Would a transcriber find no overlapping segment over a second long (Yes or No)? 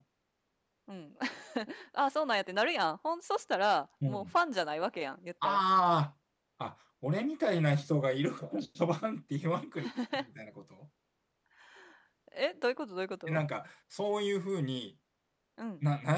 Yes